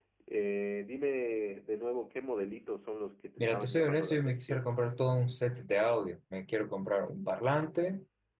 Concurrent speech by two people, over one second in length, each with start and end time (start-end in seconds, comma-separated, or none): 3.4-4.7